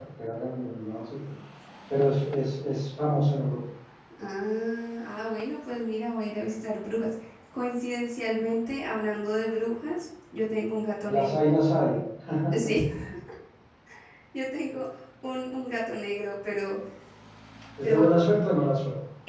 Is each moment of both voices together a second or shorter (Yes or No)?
Yes